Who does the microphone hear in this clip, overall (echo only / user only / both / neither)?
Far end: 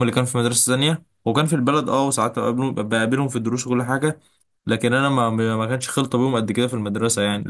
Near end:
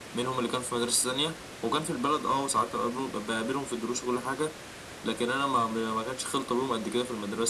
echo only